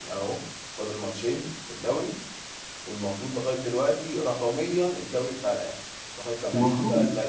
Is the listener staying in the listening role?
No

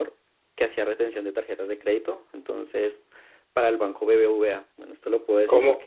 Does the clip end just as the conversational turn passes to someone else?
Yes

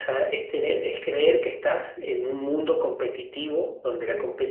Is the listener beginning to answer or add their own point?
No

